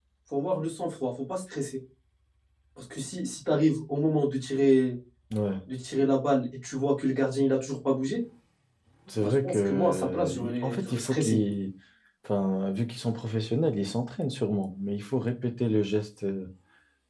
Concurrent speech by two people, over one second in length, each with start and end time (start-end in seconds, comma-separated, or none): 9.2-11.4